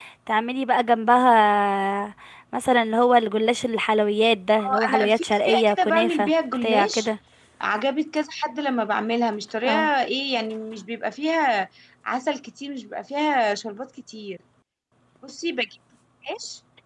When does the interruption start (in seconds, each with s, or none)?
4.6 s